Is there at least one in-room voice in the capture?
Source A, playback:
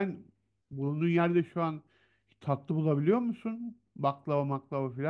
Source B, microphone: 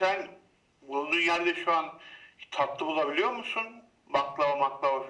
No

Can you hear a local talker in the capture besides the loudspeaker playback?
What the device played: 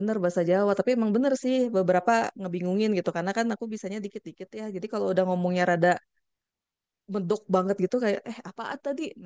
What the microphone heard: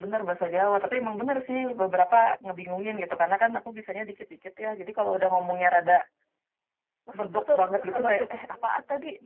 Yes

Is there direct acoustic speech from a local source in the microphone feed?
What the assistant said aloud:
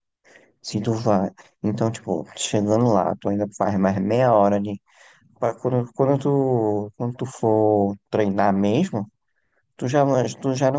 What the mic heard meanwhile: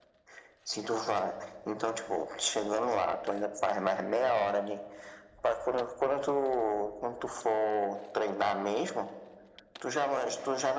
No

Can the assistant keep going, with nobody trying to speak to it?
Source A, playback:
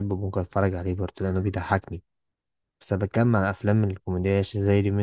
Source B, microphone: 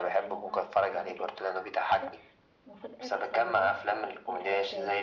No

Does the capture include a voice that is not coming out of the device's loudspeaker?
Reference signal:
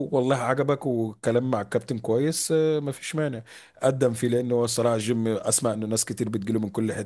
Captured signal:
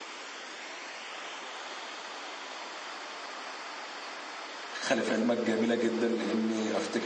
Yes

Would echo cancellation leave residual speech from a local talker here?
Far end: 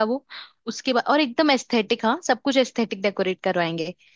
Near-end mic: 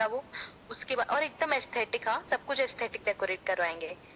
No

